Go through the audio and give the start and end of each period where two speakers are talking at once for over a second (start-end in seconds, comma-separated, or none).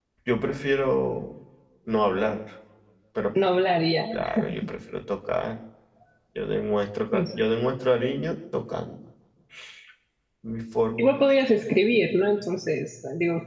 none